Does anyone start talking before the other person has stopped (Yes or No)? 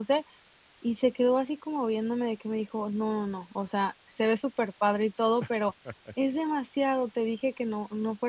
No